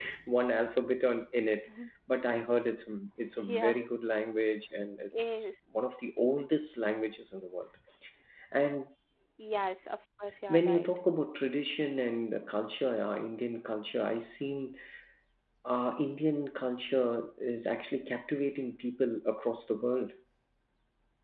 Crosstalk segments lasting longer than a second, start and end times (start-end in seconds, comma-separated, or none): none